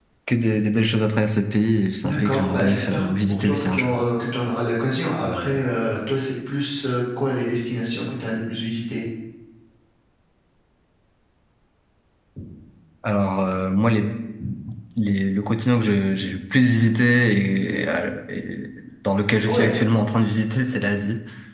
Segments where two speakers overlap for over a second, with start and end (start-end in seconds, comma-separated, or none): 2.0-3.9